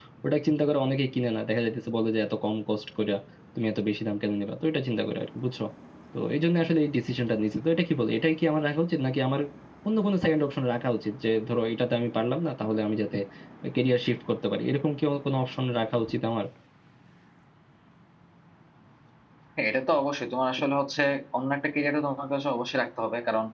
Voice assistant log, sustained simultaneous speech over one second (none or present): none